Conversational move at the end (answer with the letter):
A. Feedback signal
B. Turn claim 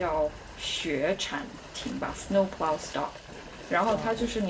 A